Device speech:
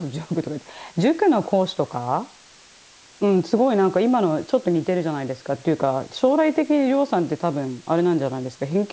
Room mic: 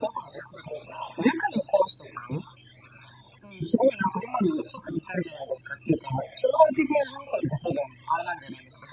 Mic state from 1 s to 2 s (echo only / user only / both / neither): echo only